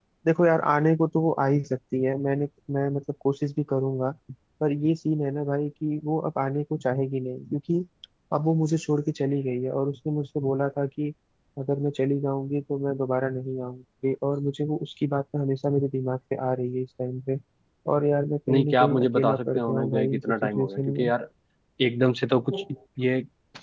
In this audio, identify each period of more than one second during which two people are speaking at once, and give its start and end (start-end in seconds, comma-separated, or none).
18.5-21.1